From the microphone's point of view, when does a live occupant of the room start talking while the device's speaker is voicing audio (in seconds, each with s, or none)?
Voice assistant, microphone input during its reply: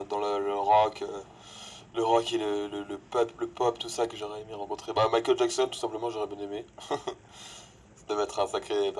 none